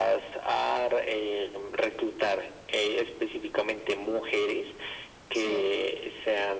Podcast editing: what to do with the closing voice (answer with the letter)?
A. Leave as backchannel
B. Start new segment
A